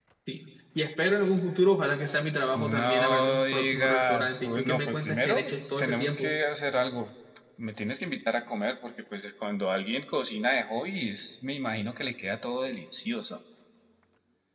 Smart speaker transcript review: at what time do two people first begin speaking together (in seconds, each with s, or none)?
2.6 s